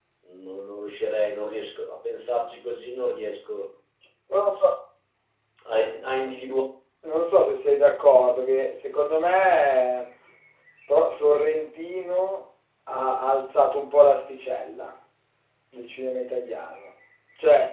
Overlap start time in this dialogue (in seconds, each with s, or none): none